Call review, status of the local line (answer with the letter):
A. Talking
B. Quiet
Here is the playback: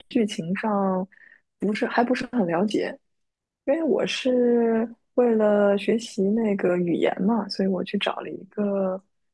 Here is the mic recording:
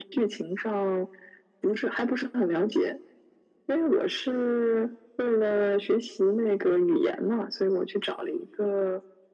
B